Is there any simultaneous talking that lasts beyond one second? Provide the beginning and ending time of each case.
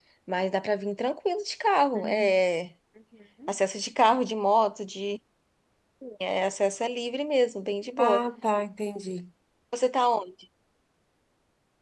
none

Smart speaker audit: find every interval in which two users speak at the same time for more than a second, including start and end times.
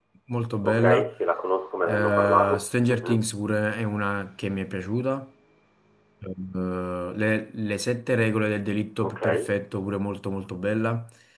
1.8-3.2

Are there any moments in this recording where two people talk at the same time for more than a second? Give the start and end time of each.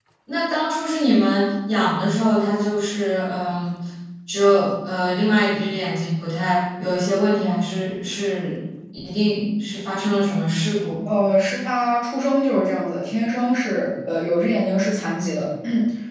none

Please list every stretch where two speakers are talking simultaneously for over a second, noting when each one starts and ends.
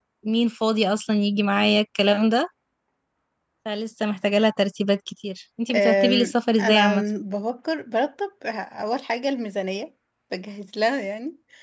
5.7-7.0

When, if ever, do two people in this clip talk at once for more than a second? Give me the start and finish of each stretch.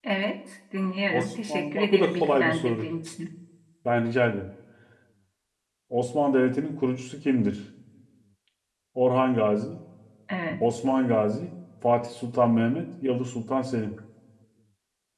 1.1-2.9

